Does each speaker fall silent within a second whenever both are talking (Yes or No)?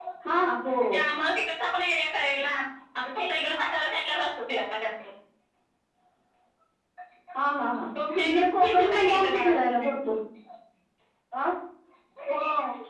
No